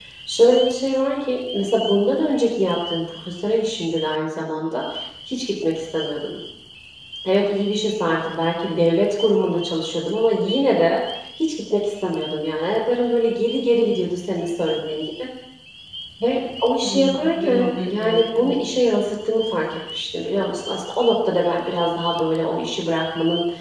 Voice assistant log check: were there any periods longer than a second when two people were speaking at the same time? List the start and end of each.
16.8-18.7

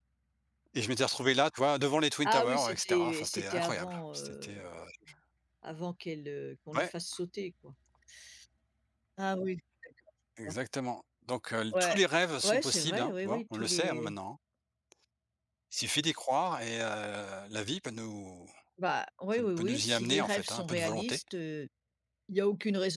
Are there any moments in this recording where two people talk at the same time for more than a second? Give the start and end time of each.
2.2-4.5, 12.4-14.1, 19.3-21.2

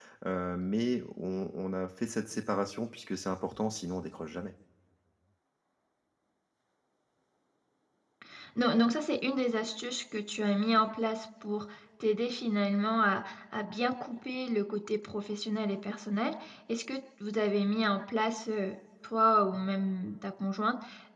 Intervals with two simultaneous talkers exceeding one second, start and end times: none

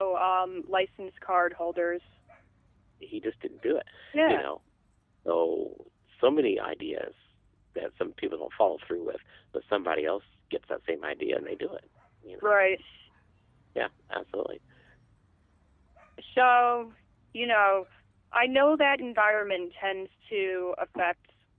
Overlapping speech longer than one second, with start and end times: none

